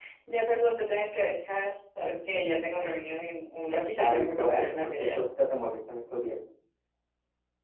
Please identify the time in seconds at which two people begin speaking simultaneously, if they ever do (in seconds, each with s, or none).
4.0 s